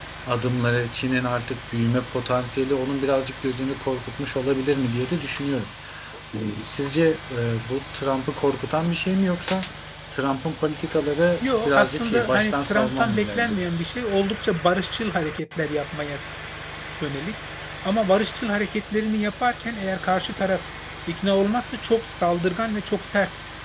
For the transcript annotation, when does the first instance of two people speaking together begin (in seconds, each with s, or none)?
11.4 s